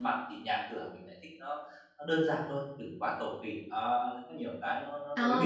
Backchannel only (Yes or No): No